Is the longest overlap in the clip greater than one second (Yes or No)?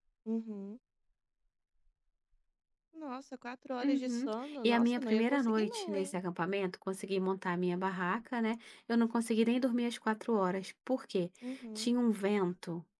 Yes